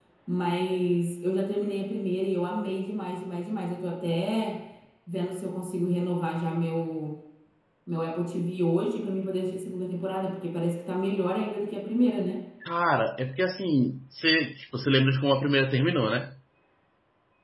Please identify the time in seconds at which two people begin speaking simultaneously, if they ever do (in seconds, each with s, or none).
none